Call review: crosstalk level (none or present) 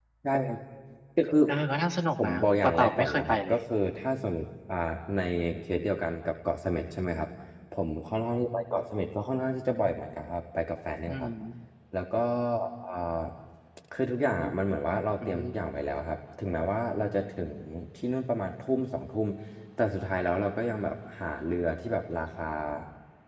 present